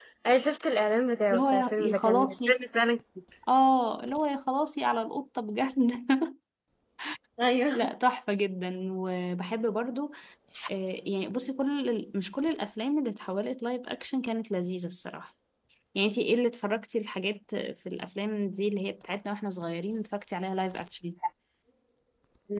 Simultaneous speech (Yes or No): Yes